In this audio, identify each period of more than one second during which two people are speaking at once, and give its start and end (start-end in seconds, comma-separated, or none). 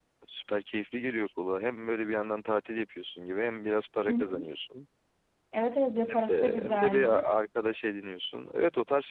6.0-7.3